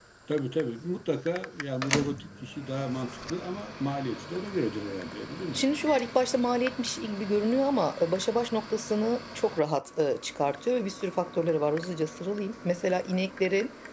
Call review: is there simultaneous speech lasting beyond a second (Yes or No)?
No